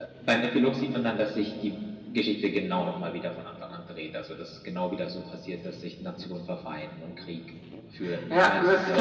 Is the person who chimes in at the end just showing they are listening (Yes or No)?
No